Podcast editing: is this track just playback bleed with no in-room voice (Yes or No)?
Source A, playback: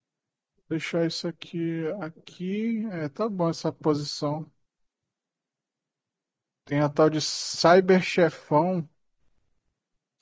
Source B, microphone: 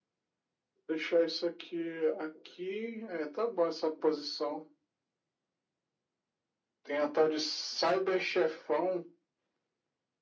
Yes